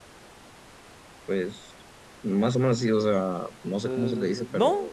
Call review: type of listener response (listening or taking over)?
taking over